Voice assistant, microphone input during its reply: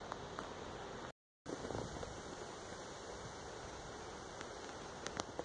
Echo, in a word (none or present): none